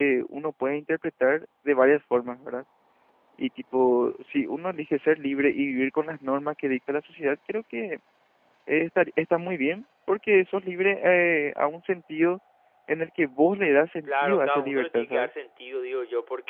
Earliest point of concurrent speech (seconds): 14.1 s

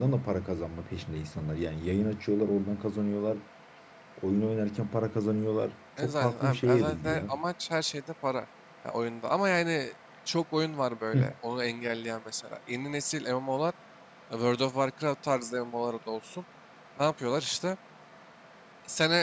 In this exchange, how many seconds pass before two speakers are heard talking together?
6.0 s

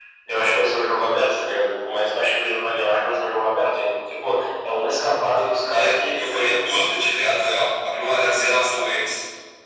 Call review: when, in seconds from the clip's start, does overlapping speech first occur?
5.4 s

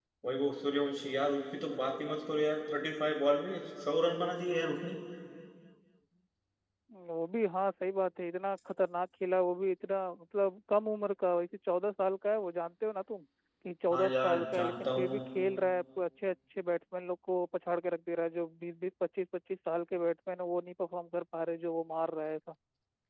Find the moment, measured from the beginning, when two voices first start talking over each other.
13.9 s

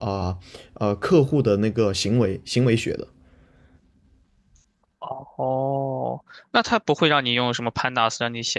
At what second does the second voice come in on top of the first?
none

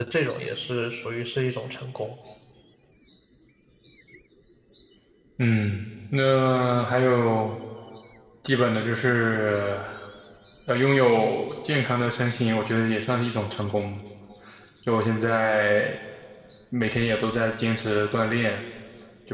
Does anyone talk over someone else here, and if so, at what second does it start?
none

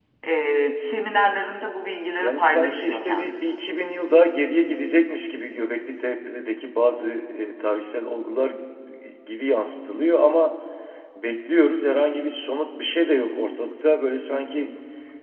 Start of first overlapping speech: 2.2 s

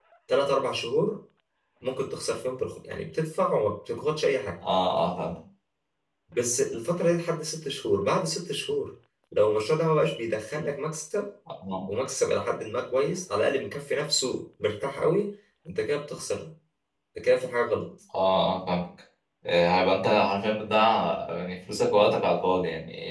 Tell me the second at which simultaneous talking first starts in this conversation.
none

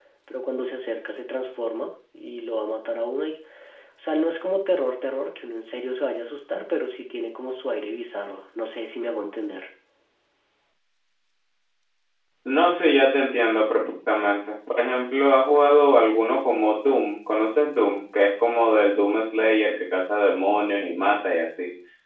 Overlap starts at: none

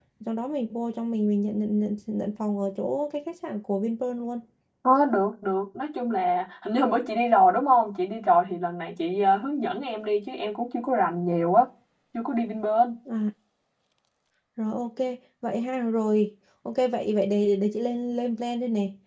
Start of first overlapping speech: none

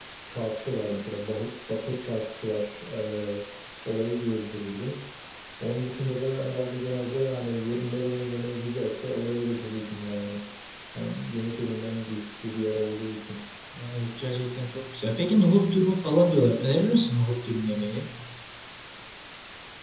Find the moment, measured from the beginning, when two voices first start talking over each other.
none

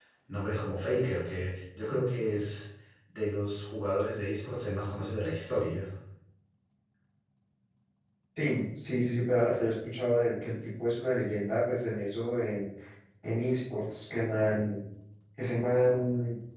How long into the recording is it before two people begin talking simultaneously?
none

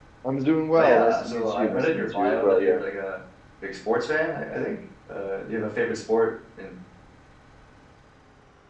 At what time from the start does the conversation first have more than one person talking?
0.8 s

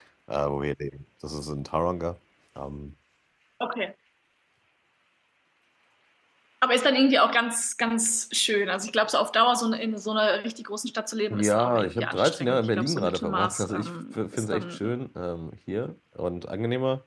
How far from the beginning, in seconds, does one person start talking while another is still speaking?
11.3 s

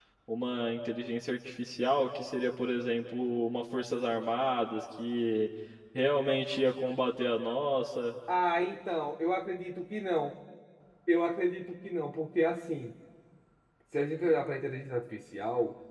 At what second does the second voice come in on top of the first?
none

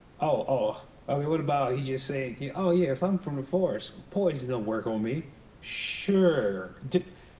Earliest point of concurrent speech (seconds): none

